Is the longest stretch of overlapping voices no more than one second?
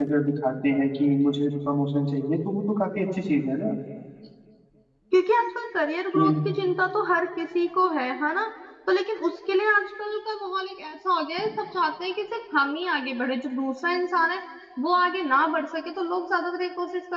Yes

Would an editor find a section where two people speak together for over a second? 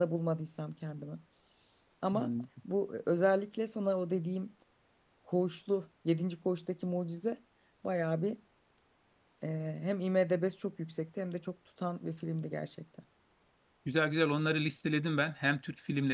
No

